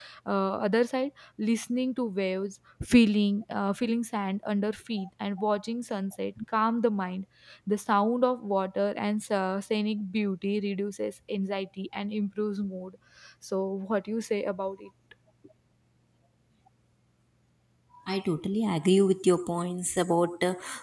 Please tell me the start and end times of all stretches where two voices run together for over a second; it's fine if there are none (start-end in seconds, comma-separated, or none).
none